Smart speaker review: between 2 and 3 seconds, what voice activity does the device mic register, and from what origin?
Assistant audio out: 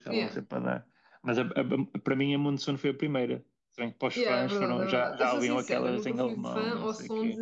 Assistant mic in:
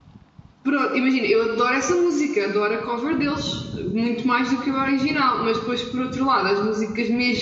user only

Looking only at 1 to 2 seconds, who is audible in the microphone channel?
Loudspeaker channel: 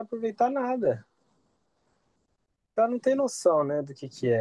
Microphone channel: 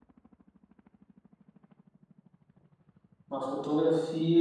neither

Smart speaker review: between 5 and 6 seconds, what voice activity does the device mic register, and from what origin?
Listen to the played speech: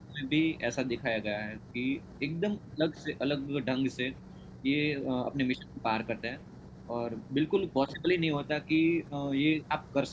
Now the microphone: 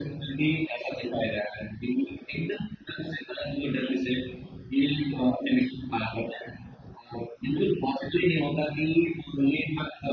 echo only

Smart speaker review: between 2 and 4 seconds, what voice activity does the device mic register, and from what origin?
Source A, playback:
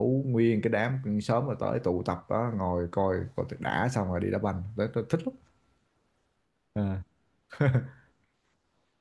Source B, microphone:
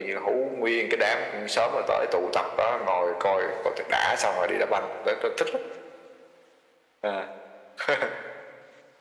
echo only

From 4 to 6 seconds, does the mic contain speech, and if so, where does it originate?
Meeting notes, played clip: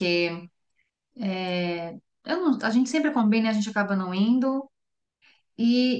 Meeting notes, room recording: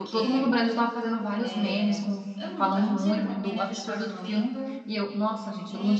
both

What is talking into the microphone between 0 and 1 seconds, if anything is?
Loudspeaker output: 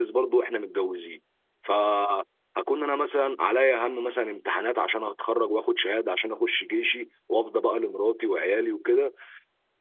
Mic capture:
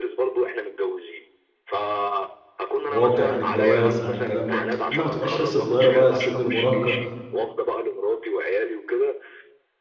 echo only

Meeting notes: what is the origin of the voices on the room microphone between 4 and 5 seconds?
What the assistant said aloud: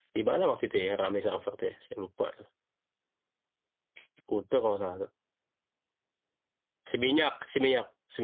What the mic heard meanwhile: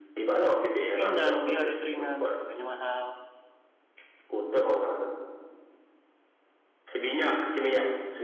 echo only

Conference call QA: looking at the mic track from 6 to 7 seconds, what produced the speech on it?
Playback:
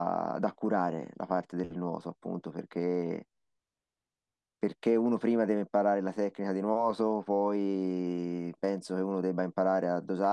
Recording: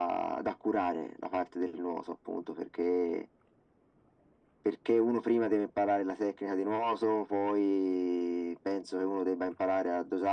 echo only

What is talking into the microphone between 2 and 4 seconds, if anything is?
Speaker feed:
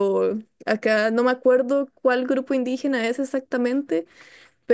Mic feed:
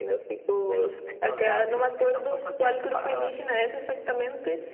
both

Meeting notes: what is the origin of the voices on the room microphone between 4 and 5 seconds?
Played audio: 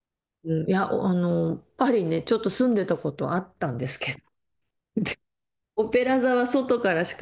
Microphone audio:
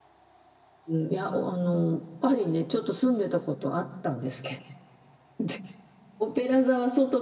echo only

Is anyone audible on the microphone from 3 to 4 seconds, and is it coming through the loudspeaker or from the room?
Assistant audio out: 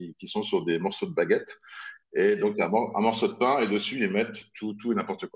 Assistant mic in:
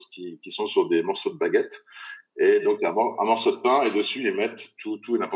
echo only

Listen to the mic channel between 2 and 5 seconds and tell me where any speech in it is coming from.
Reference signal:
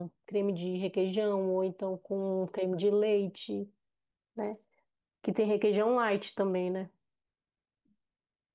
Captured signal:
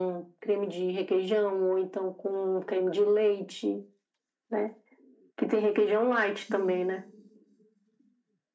echo only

